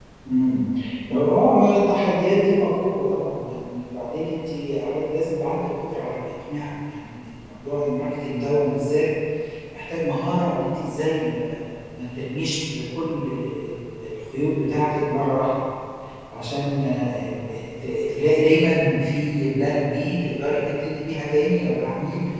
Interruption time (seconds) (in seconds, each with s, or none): none